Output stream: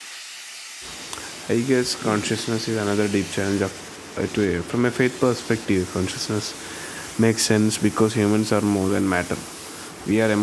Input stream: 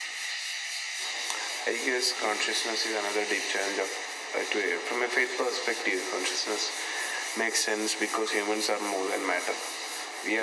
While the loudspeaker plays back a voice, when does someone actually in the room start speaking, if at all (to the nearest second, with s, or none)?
none